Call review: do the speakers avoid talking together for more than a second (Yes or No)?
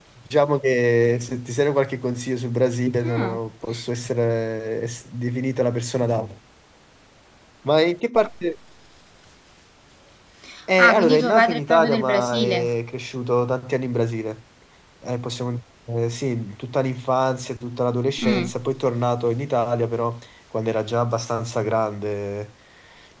No